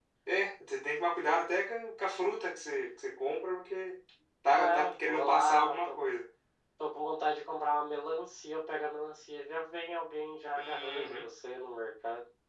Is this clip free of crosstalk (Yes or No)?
No